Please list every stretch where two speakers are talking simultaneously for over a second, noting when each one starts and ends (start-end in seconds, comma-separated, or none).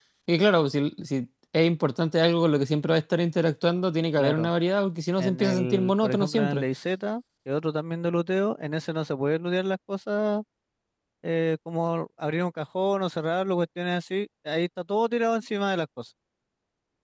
5.2-6.7